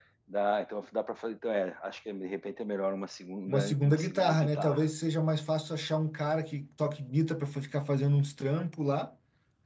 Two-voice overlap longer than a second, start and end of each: 3.5-4.8

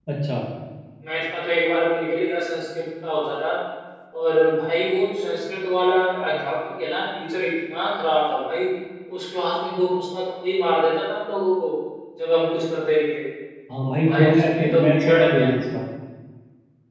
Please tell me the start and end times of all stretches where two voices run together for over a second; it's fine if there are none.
13.9-15.5

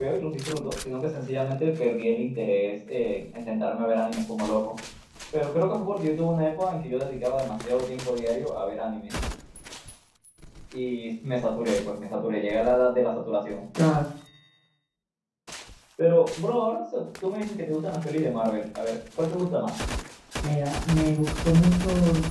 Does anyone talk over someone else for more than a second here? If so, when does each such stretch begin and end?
none

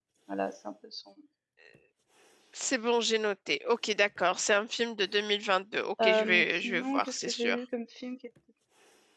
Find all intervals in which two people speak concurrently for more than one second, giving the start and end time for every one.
6.0-7.6

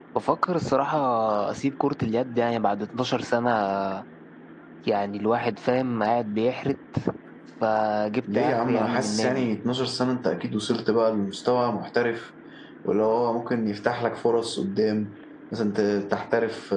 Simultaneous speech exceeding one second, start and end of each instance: 8.2-9.5

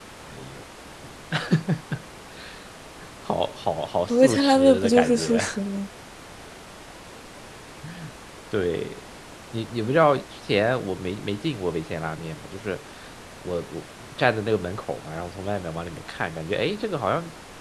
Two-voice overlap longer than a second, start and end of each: 4.1-5.4

